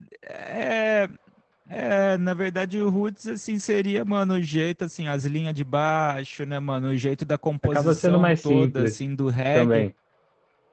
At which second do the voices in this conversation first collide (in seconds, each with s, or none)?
7.6 s